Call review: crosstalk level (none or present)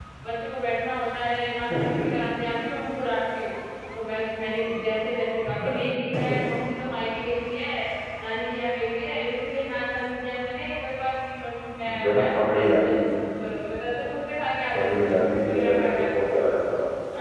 present